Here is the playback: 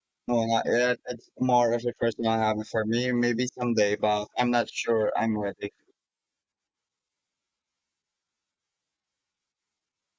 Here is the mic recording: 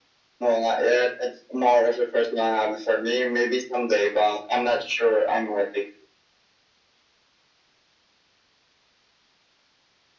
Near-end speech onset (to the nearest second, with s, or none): none